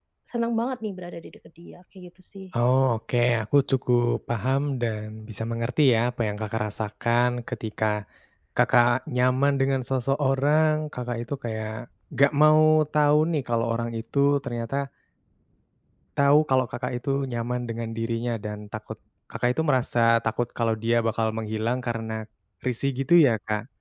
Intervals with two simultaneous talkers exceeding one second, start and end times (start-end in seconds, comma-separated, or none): none